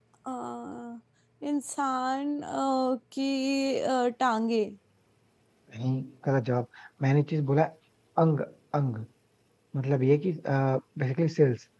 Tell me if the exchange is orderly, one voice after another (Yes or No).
Yes